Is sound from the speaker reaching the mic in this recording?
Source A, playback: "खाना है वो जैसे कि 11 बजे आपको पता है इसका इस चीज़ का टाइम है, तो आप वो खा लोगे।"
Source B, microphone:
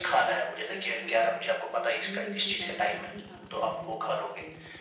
Yes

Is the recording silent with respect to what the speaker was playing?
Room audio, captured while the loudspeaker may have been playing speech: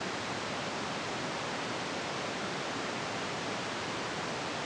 Yes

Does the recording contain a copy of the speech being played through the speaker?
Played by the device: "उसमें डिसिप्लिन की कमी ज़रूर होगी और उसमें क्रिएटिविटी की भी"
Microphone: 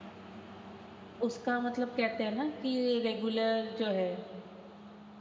No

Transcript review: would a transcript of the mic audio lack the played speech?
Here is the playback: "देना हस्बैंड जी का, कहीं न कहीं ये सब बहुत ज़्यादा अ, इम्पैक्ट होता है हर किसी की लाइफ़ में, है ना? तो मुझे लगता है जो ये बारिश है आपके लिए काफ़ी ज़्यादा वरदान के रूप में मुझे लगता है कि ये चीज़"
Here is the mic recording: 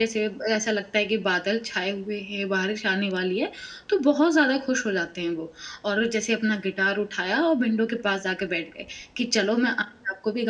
Yes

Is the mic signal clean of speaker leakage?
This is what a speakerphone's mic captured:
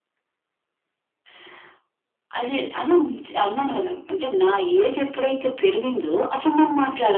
No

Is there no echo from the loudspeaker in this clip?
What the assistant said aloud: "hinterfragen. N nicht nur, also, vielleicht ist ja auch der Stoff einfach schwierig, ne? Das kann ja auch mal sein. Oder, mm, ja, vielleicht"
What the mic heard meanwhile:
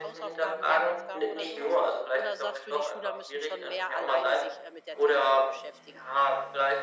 No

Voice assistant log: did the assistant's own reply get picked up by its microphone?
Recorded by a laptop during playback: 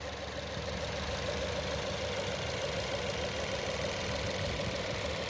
No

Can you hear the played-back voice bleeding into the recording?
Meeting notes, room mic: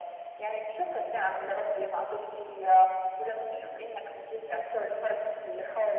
Yes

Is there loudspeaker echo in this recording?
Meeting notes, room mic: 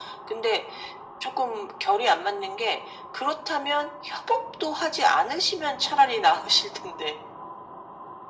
Yes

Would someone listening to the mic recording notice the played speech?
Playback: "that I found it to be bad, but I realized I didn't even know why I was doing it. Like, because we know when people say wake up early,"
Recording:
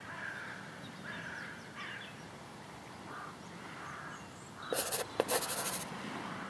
No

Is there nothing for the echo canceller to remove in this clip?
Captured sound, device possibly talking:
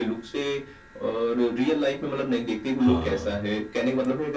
No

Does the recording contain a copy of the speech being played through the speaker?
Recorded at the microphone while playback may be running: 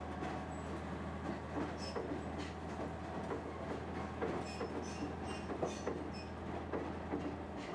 No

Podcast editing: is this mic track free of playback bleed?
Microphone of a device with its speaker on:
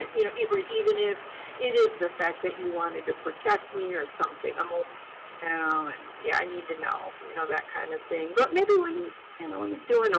No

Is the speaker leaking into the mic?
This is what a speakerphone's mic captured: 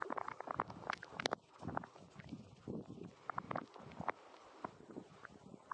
No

